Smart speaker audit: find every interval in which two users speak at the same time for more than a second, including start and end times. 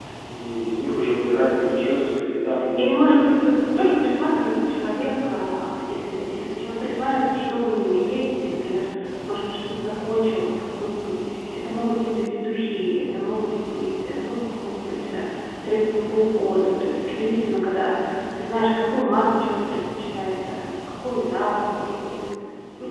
2.8-4.2

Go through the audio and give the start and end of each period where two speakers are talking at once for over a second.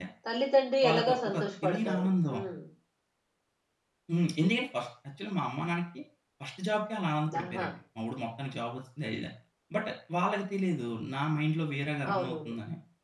0.8-2.3

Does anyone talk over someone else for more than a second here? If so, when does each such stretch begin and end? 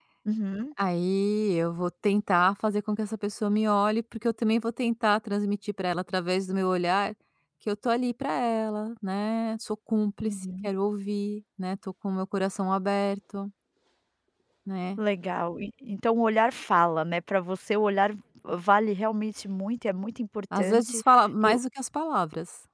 none

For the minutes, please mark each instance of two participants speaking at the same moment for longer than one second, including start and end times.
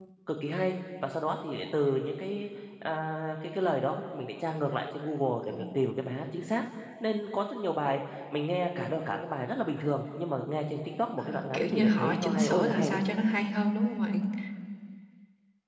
11.2-13.0

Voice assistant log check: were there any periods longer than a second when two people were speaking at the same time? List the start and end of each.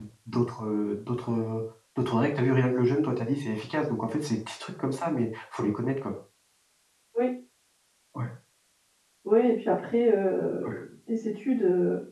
none

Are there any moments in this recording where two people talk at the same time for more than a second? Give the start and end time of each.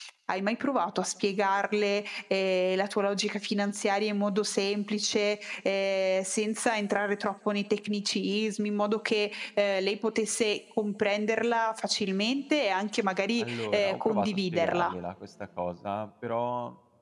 13.4-14.9

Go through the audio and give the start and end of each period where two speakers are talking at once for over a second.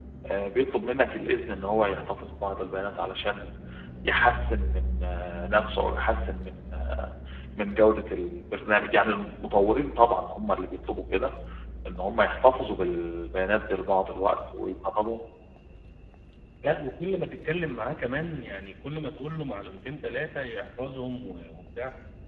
none

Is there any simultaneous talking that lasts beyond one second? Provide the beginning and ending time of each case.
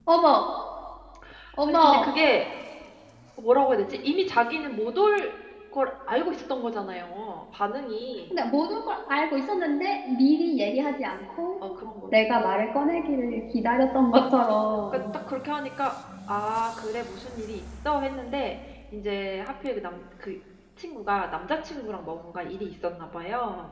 none

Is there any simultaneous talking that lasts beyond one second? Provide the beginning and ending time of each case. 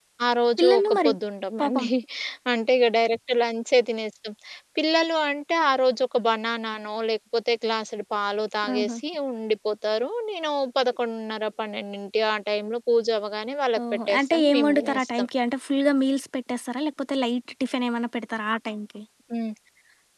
14.1-15.3

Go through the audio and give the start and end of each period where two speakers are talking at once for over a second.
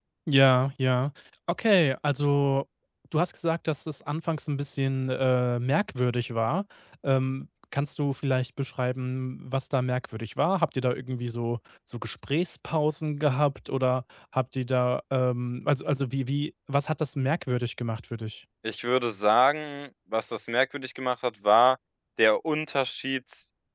none

